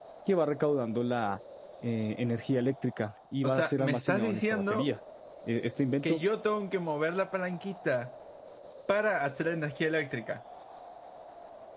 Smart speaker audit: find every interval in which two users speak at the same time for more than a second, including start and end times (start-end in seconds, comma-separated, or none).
3.4-4.9